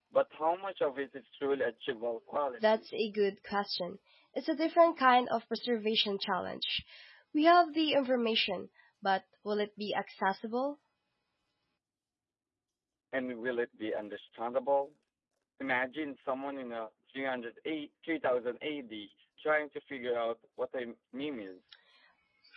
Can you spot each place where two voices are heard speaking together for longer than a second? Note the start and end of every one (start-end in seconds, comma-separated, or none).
none